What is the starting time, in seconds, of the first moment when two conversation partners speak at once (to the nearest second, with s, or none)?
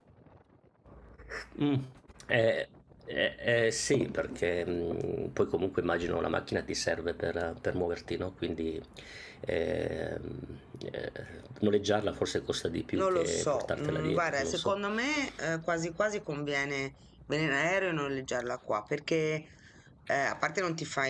13 s